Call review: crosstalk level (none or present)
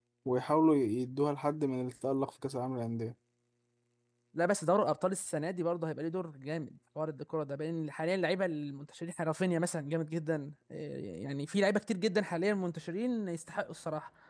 none